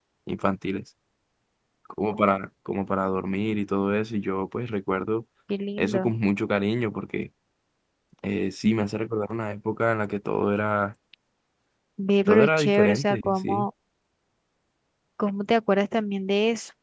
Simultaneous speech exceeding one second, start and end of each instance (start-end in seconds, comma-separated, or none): 12.3-13.7